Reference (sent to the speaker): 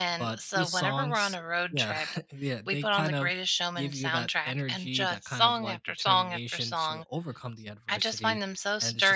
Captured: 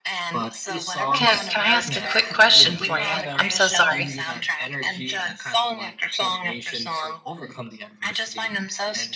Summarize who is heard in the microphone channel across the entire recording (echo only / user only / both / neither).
both